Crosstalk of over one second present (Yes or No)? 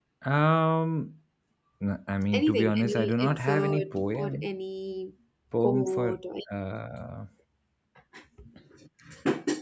Yes